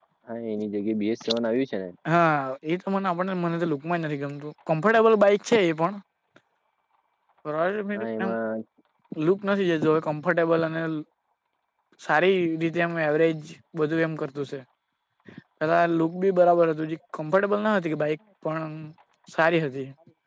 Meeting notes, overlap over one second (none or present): none